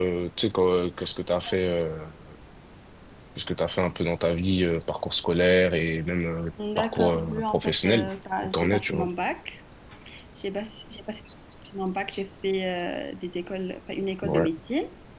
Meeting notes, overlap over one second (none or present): present